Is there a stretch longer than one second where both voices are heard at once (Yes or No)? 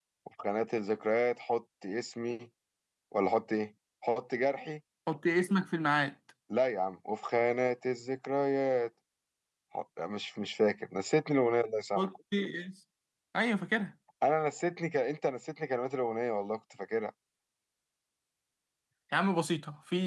No